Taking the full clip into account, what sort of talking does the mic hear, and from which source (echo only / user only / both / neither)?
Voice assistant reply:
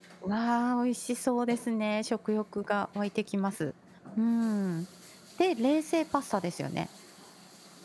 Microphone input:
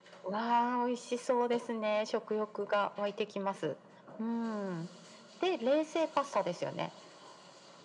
echo only